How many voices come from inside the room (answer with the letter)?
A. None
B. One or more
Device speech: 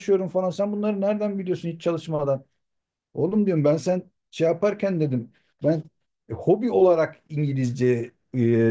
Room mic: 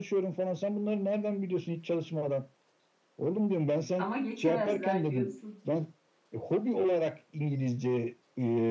B